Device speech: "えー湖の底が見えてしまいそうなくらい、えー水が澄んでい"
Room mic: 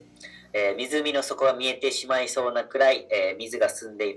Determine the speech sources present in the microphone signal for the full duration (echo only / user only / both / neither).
echo only